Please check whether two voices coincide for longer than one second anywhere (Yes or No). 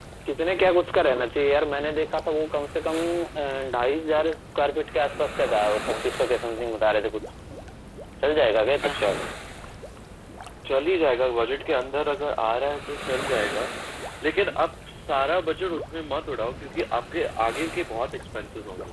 No